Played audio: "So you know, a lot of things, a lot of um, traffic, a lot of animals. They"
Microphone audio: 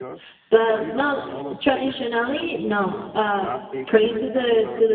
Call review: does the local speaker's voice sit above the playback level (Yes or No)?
Yes